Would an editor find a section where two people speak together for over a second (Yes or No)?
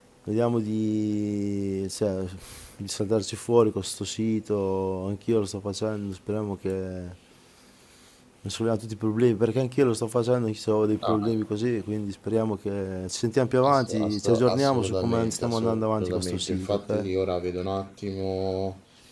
Yes